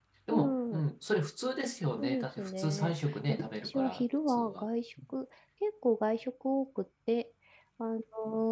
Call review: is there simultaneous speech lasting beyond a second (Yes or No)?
Yes